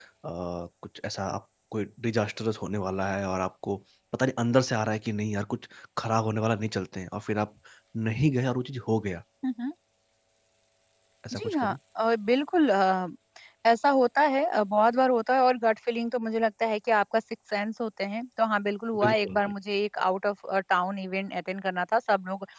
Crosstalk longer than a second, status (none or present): none